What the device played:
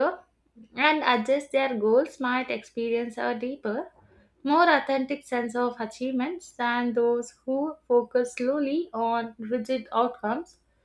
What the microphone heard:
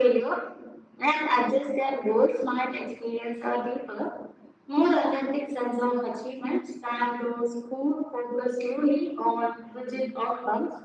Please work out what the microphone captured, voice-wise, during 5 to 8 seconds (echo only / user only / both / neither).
echo only